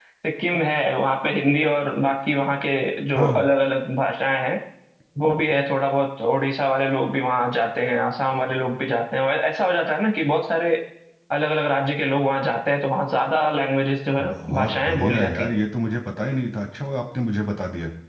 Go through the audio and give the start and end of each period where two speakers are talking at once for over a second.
14.2-15.5

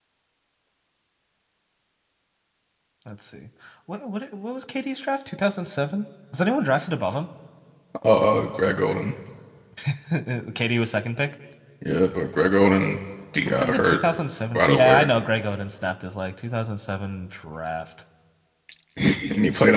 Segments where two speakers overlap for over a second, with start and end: none

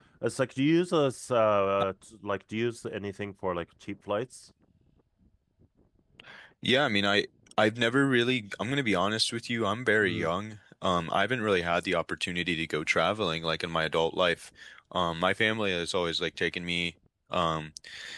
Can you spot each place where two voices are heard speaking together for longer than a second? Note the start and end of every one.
none

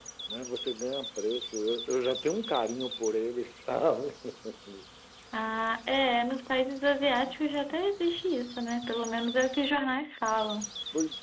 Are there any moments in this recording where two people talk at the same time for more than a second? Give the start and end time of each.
none

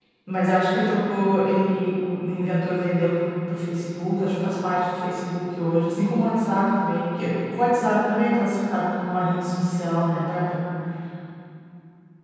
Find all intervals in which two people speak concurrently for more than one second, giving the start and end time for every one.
none

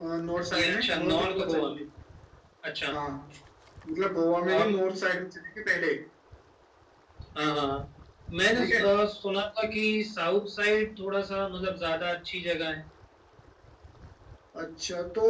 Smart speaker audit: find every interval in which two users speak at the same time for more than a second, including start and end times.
0.5-1.7

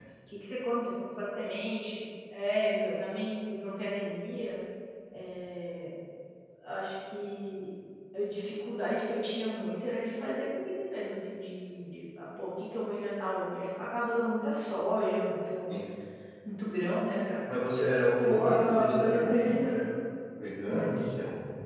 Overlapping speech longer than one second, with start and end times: 18.2-19.8

